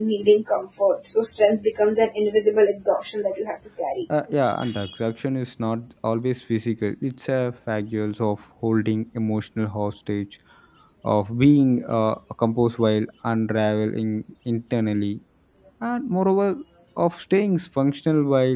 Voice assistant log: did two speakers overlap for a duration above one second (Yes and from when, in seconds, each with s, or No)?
No